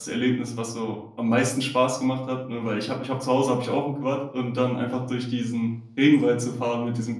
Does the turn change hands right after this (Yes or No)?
No